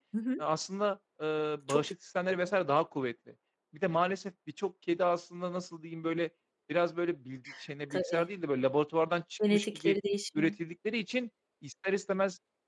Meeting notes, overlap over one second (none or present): none